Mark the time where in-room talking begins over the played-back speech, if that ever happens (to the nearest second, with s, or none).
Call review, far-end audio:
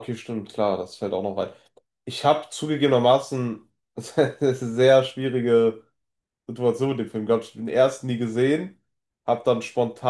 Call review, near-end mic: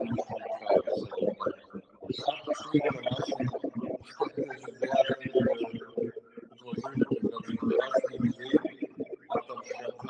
none